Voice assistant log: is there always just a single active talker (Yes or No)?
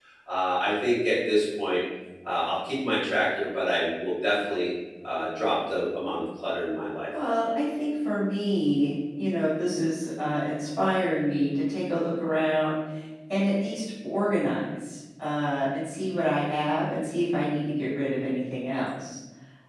Yes